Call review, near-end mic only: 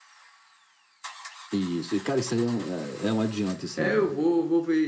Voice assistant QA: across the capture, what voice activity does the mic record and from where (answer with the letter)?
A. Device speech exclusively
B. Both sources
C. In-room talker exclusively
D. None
B